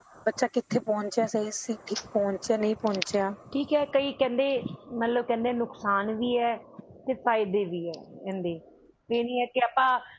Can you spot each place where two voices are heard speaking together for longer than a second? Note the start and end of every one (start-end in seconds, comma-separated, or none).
none